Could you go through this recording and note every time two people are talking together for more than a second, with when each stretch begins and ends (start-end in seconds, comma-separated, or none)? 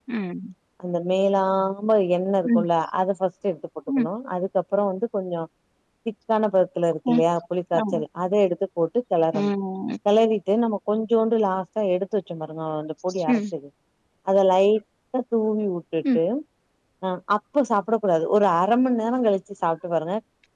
none